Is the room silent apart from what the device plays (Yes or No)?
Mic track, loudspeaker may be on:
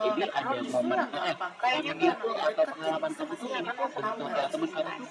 No